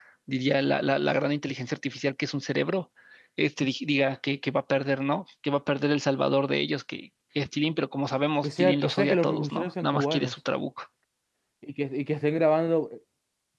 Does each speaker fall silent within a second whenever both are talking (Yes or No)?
No